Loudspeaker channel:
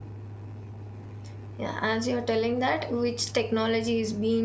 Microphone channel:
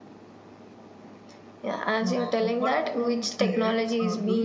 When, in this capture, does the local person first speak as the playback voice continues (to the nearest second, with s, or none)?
2 s